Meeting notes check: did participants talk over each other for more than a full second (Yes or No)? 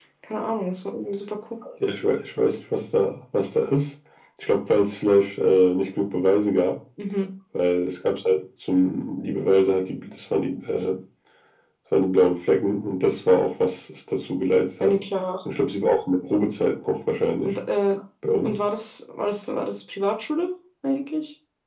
No